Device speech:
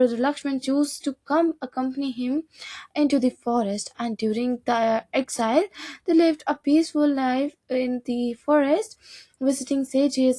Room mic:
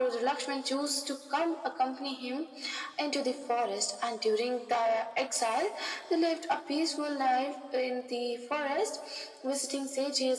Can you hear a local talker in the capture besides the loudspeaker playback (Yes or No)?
No